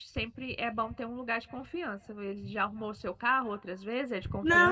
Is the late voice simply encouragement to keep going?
No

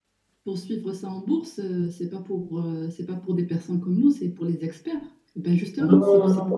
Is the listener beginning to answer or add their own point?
Yes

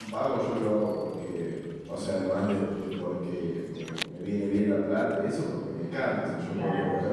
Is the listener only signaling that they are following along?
Yes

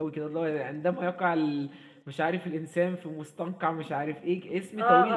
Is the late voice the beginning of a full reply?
Yes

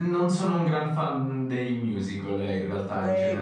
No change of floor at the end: No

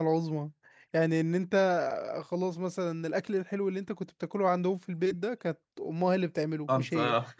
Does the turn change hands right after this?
No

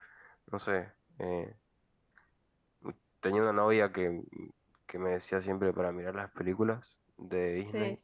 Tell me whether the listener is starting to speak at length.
No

